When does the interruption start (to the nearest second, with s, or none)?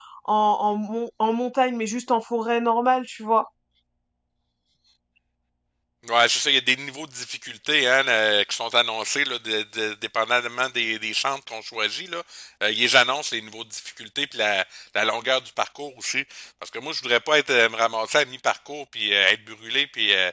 none